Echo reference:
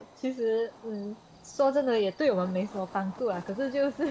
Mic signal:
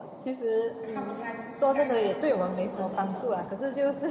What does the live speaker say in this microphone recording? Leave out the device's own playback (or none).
看不下去，尴尬的不行的那种，